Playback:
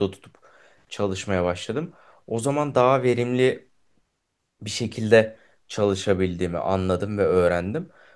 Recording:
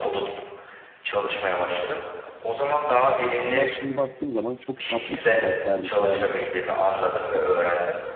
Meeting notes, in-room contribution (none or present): present